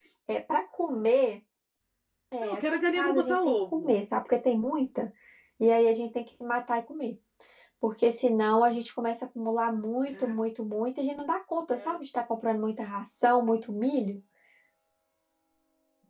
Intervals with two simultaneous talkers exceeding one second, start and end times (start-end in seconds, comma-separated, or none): 2.4-3.9